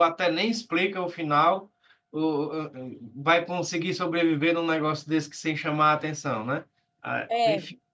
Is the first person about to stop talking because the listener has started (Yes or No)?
Yes